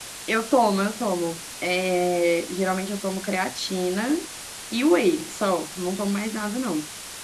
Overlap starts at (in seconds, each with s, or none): none